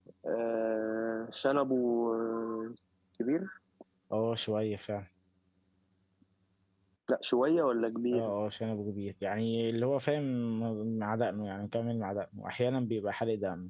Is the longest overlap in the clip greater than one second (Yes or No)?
No